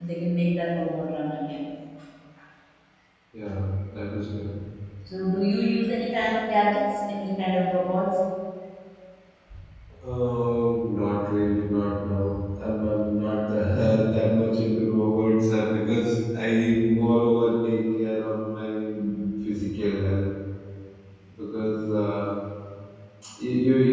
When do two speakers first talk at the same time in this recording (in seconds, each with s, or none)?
none